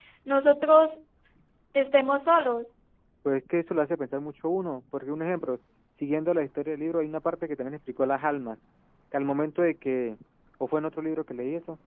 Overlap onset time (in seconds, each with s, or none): none